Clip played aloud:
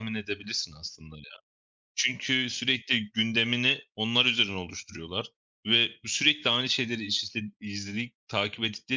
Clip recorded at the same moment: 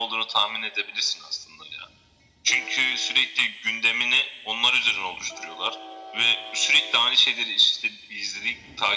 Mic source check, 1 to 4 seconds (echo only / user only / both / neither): echo only